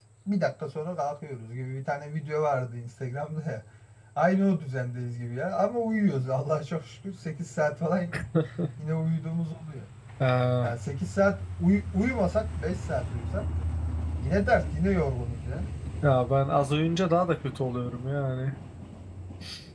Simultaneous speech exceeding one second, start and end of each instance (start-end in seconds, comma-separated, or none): none